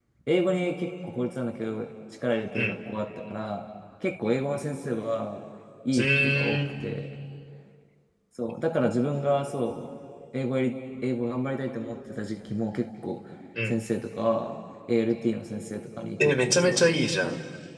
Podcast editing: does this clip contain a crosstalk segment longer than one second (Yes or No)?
Yes